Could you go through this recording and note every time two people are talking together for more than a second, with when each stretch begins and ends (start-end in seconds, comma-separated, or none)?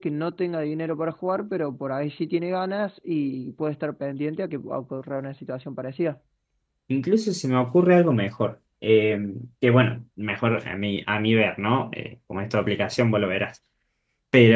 none